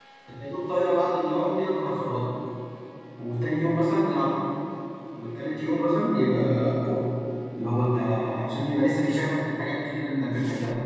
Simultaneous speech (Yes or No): No